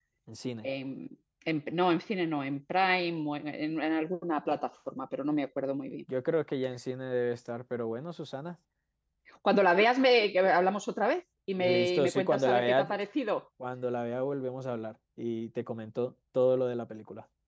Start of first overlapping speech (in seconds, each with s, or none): 11.6 s